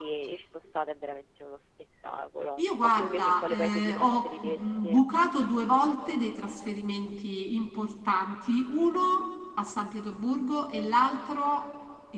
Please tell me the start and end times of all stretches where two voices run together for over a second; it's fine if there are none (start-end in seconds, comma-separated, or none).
2.6-5.0